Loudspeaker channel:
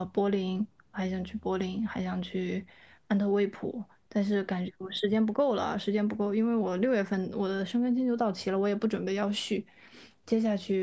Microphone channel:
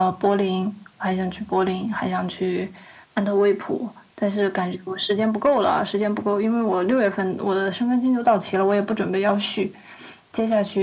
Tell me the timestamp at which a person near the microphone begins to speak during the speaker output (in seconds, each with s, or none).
none